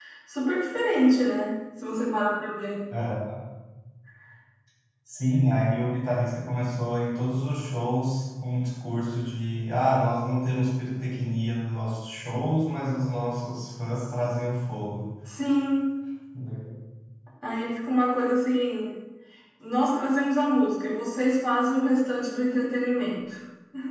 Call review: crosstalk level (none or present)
none